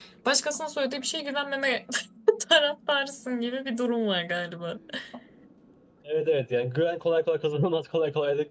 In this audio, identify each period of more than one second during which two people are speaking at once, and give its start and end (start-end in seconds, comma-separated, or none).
none